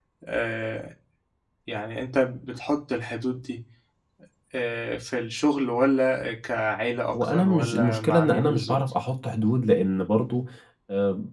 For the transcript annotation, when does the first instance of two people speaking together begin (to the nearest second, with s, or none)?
7 s